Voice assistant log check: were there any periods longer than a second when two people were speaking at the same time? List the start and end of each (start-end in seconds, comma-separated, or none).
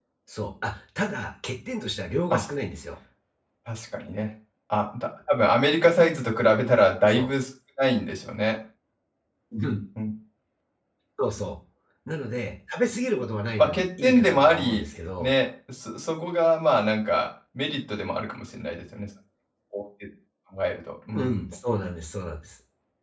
13.6-15.3